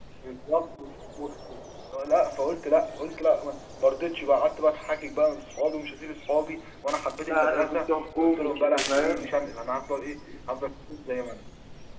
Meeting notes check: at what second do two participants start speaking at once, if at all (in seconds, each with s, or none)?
7.3 s